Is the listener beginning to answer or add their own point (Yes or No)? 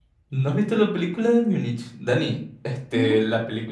No